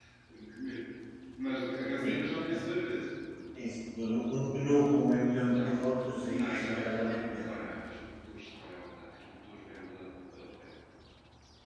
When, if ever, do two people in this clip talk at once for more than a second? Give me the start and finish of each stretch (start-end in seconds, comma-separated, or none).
6.3-7.5